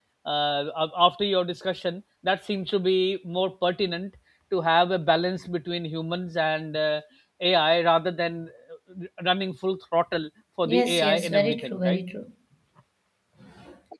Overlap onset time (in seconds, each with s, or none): 10.7 s